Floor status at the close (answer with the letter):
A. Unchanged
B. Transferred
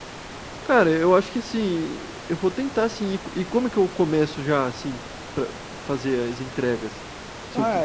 B